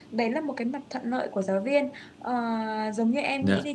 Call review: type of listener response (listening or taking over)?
listening